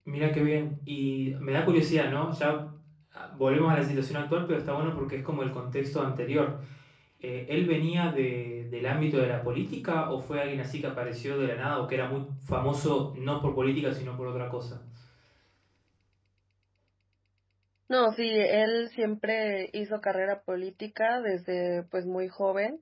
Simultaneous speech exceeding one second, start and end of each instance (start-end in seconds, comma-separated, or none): none